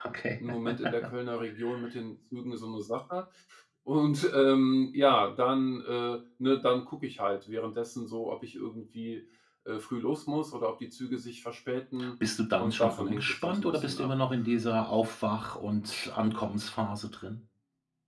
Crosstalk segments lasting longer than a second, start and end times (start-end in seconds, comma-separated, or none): 12.6-14.1